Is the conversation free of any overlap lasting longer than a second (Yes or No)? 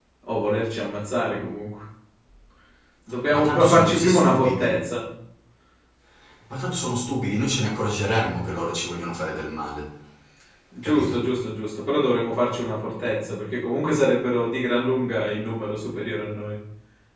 No